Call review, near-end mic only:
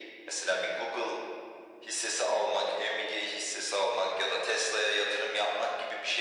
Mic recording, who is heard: echo only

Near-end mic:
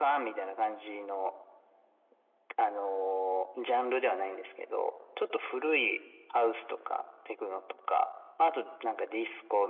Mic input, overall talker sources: echo only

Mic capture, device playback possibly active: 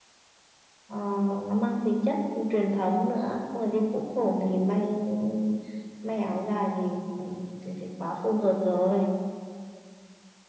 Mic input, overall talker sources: echo only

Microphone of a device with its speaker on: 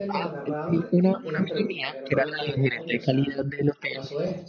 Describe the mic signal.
both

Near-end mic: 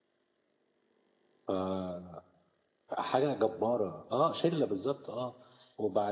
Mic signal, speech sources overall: user only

